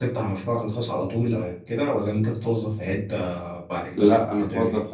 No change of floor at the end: No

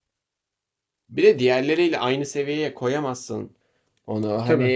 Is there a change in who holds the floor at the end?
No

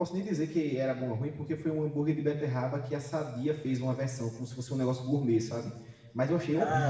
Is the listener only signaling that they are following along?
No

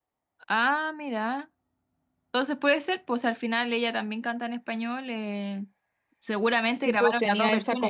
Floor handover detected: Yes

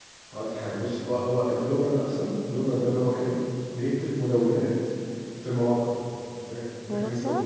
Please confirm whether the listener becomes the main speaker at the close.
No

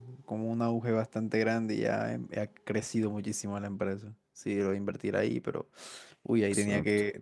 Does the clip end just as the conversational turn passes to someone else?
No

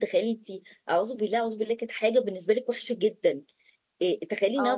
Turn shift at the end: No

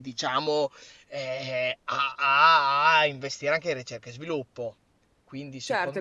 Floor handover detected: Yes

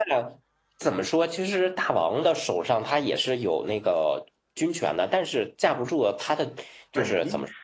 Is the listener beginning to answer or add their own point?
Yes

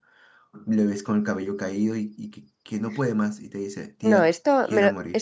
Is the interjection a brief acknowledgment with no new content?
No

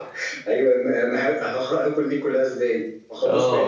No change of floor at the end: No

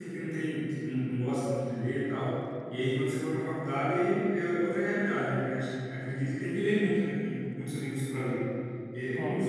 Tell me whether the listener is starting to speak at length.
No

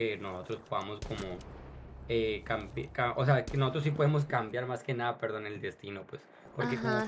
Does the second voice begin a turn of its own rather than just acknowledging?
Yes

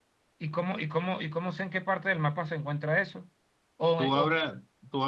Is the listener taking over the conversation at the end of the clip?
Yes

